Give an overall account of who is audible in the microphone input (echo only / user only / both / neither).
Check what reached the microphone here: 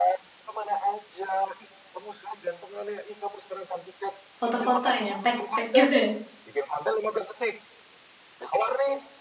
both